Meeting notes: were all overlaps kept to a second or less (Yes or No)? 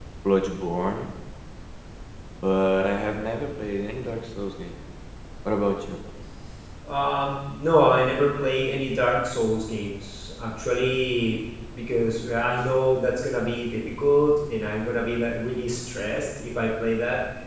Yes